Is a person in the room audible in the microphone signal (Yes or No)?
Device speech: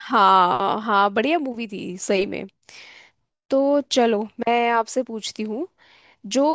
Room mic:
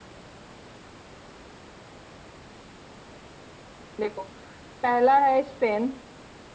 Yes